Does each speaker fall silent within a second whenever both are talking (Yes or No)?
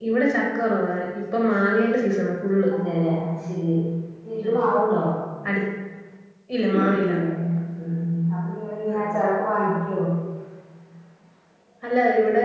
Yes